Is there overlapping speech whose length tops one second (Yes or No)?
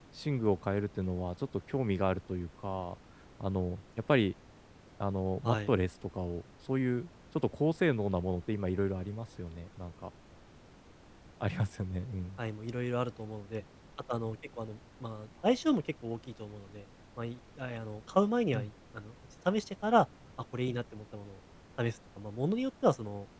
No